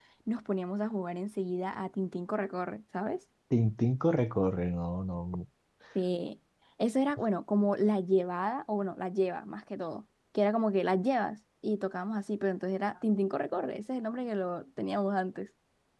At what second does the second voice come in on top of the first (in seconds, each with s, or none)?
none